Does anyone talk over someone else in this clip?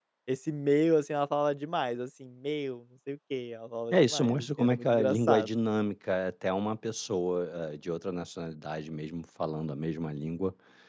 Yes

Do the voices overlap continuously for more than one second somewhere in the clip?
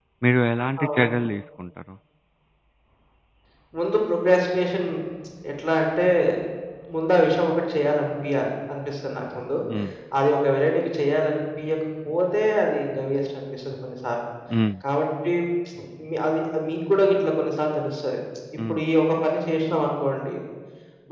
No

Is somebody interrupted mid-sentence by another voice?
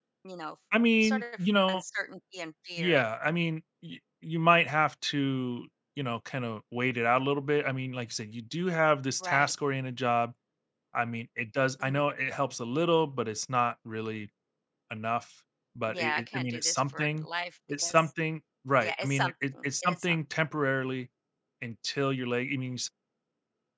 Yes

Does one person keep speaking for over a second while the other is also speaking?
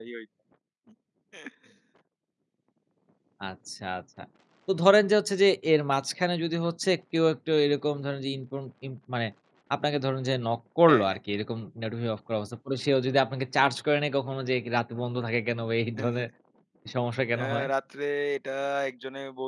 No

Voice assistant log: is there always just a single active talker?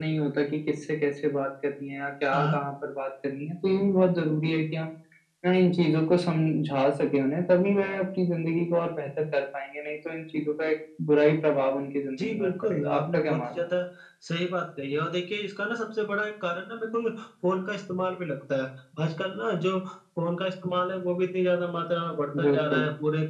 No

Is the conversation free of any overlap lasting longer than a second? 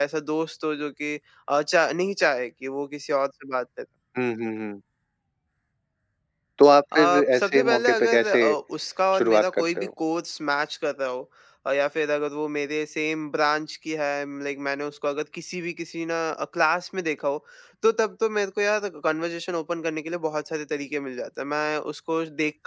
No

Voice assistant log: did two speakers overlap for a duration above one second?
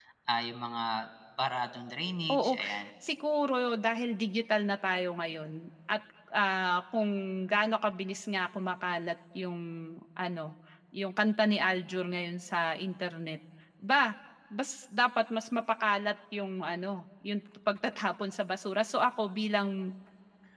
No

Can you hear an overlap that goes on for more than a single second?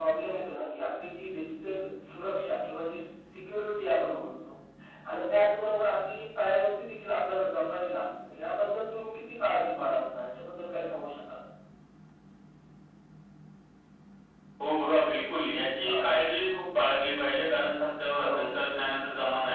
No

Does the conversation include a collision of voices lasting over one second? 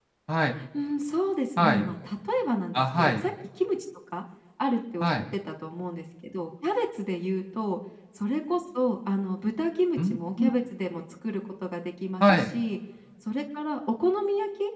No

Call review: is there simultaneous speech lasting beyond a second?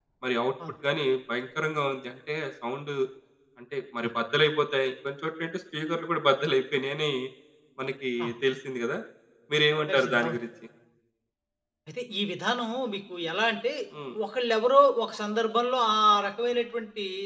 No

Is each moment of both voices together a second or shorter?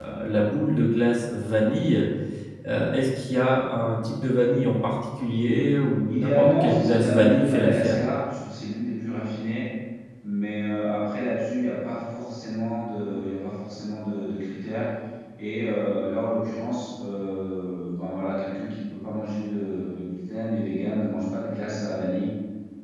No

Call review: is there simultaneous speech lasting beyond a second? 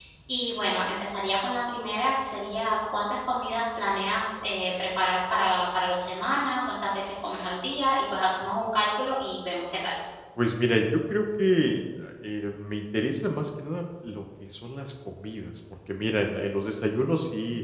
No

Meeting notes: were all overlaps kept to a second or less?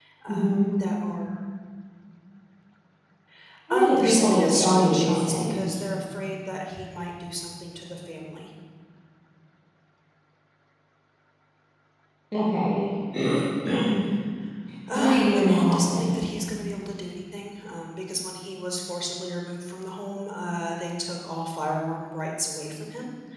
No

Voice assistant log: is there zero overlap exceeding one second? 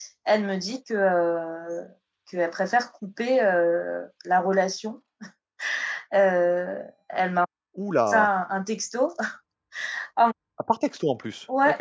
Yes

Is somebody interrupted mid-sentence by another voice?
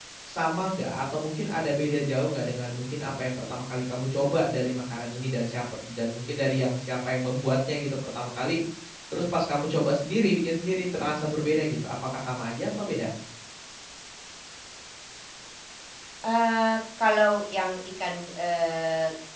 No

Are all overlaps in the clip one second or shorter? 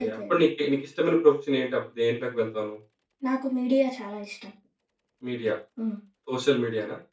Yes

